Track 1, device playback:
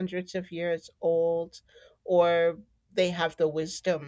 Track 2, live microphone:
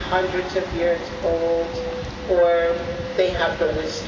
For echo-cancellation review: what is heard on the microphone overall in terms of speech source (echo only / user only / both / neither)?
echo only